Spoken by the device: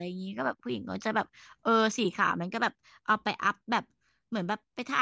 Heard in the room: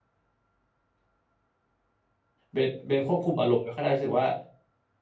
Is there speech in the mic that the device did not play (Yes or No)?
Yes